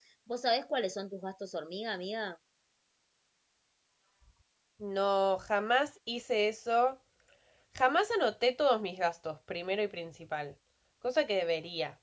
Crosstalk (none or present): none